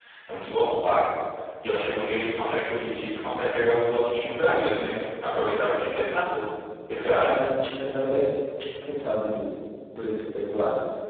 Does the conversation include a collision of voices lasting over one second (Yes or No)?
No